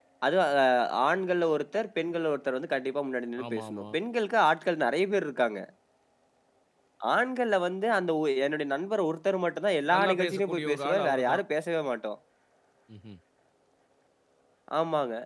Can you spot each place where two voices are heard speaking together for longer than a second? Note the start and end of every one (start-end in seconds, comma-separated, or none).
9.9-11.4